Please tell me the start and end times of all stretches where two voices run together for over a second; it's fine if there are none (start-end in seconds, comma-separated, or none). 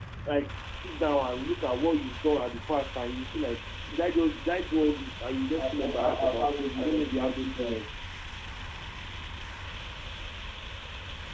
5.6-7.9